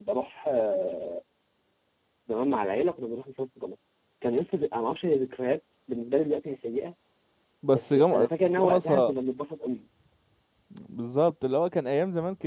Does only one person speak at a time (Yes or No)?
No